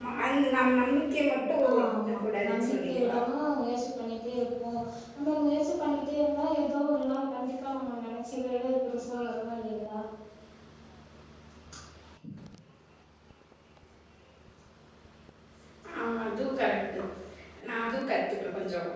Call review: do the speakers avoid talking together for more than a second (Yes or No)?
No